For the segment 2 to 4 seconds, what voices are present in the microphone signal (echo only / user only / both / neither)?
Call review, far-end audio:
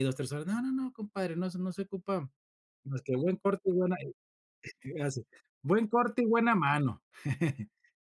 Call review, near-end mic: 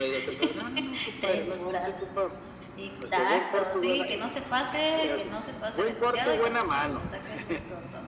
both